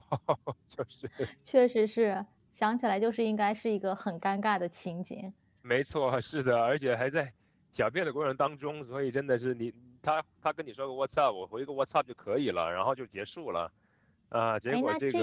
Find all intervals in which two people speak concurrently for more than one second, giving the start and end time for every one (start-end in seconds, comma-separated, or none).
none